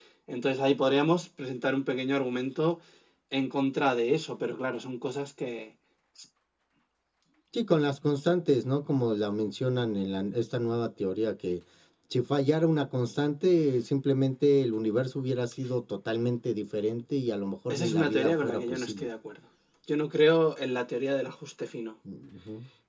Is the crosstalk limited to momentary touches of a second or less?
No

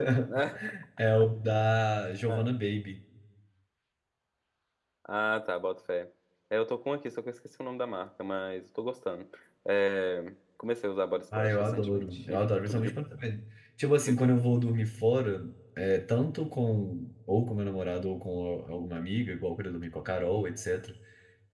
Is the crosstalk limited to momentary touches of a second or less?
No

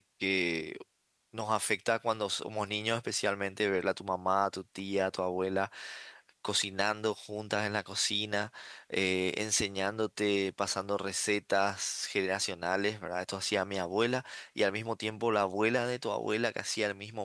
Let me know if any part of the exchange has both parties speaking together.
No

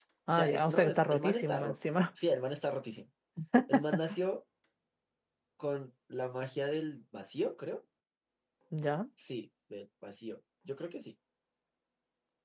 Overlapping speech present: Yes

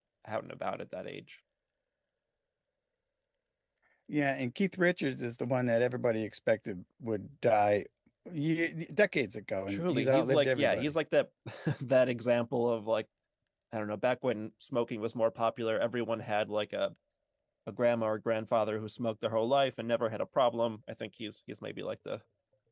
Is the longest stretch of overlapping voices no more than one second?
No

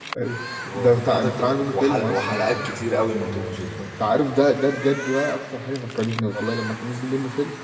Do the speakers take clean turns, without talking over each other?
No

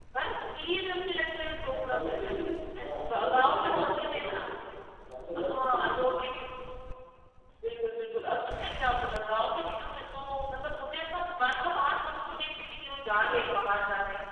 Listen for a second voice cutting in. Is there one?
Yes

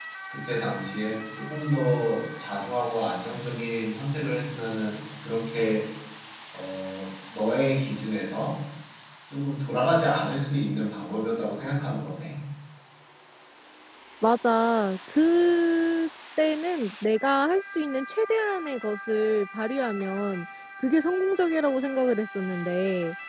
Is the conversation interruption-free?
Yes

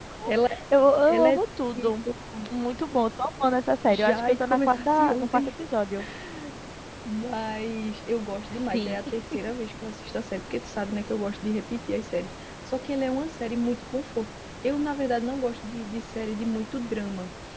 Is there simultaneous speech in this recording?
Yes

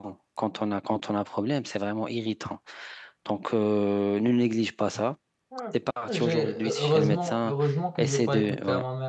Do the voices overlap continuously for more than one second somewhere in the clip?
Yes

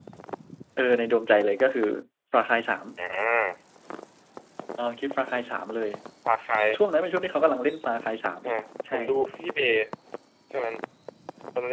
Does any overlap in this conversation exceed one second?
No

